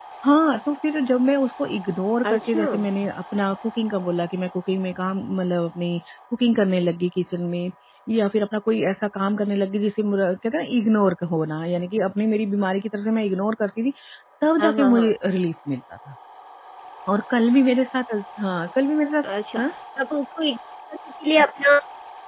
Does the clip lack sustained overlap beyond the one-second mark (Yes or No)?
Yes